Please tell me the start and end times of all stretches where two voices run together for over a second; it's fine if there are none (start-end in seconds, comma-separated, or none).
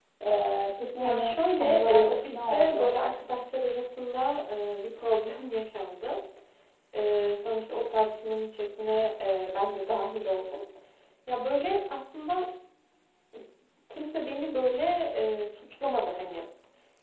1.0-2.9